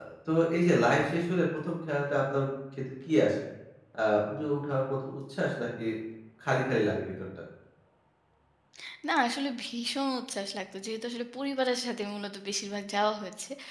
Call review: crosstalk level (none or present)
none